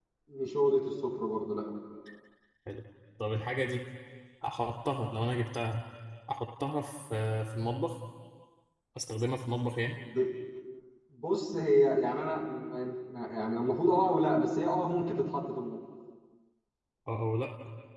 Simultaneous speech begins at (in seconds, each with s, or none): none